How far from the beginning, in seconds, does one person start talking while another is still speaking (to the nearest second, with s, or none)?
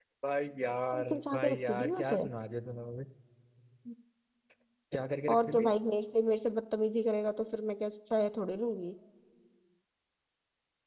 1 s